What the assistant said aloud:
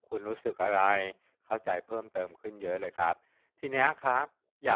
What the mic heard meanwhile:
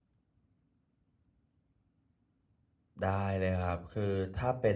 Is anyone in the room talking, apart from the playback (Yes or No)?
Yes